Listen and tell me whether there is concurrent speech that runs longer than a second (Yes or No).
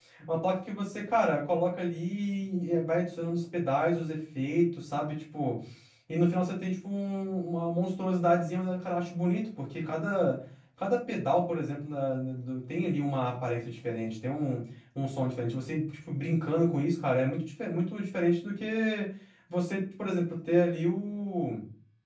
No